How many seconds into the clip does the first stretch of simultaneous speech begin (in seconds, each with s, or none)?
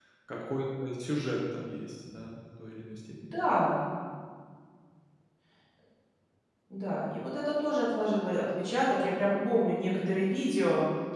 none